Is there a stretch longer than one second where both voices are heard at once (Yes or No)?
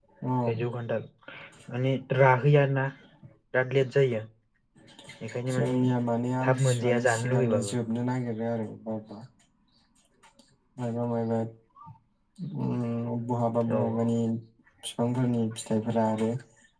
Yes